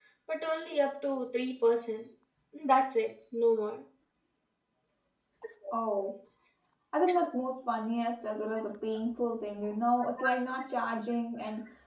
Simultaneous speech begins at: none

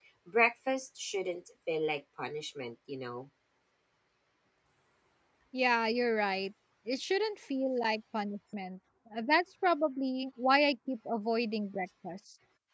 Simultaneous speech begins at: none

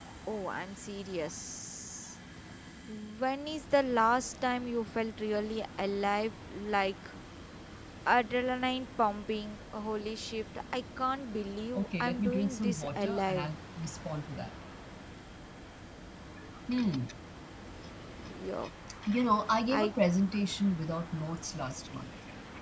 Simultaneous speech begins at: 12 s

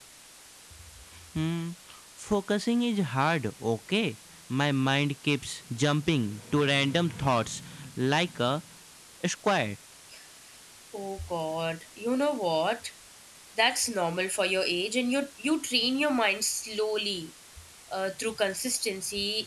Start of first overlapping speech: none

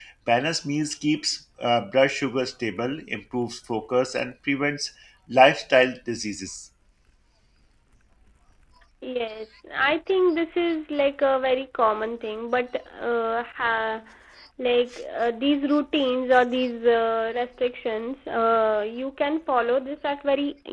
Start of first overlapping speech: none

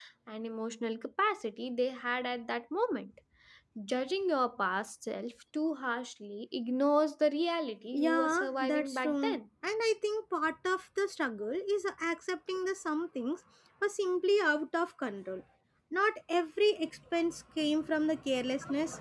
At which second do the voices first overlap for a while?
8 s

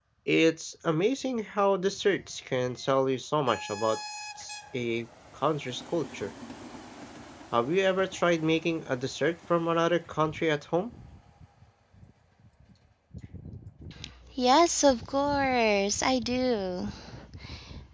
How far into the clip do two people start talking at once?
none

